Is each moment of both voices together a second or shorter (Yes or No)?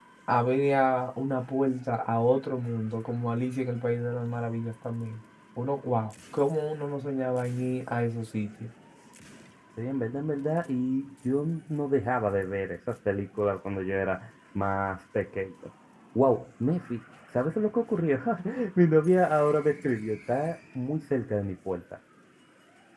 Yes